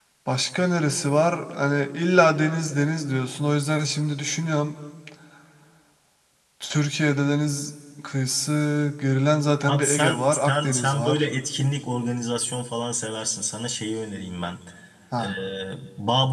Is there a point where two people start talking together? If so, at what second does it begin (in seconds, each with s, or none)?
9.7 s